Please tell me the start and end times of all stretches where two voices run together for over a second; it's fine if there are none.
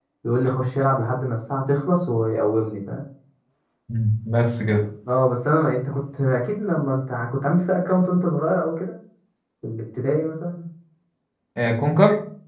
none

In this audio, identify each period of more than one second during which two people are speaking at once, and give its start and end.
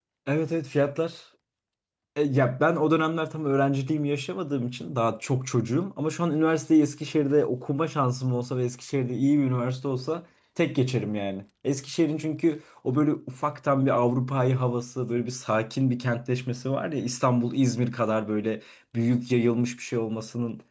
none

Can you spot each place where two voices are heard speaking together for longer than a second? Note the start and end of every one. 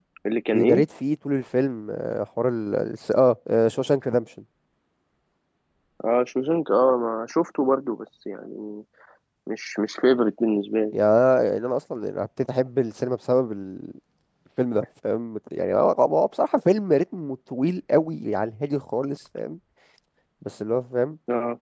none

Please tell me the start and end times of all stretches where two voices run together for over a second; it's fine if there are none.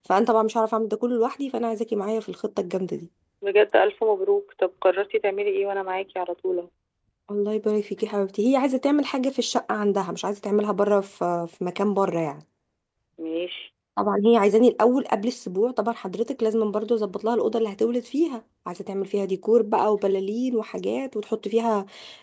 none

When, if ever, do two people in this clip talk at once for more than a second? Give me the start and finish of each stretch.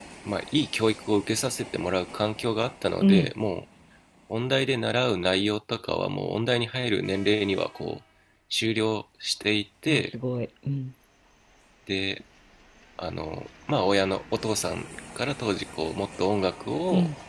none

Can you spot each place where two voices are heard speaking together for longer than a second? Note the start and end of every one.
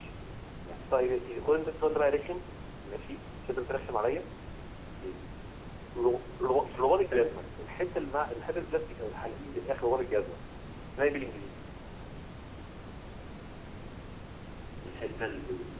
none

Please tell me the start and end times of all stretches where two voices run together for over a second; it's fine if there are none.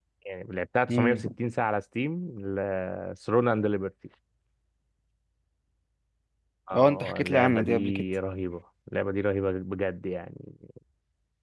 6.8-8.1

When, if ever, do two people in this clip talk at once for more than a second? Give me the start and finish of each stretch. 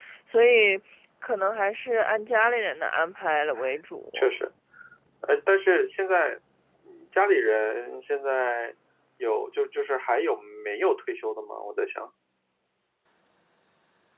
none

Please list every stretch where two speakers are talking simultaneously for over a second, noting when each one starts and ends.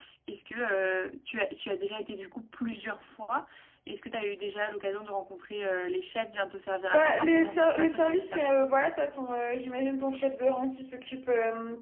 6.9-8.7

